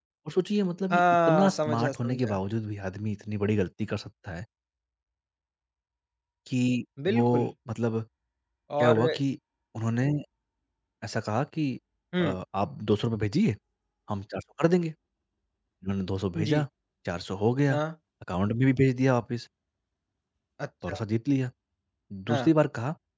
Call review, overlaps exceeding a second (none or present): present